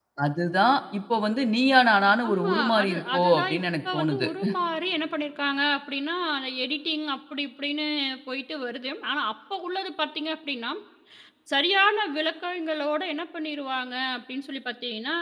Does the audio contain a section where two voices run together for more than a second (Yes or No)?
Yes